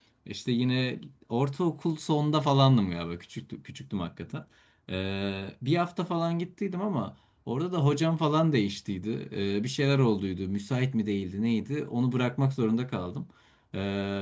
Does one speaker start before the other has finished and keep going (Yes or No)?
No